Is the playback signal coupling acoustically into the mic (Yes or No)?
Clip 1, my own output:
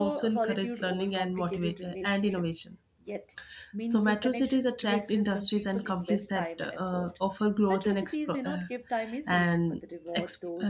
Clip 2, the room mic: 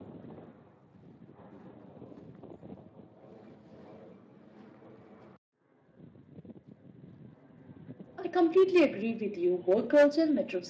No